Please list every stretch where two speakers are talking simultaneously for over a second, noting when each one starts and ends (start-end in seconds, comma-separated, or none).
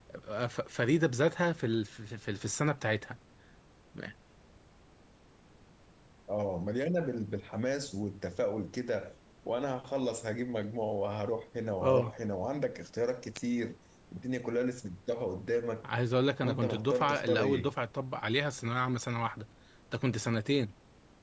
16.4-17.7